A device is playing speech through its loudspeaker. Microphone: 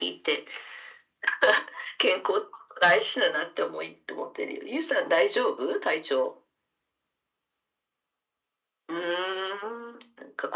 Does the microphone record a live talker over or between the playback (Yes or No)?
No